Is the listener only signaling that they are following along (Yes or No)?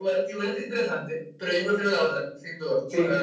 No